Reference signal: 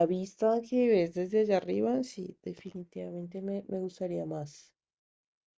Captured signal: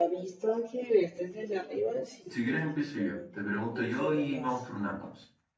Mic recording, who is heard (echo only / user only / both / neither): both